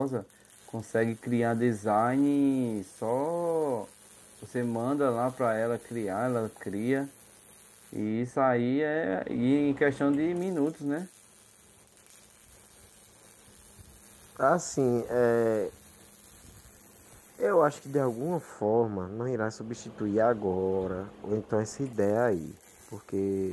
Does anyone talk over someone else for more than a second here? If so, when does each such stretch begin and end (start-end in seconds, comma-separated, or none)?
none